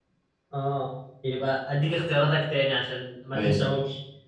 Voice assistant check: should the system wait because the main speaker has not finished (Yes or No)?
Yes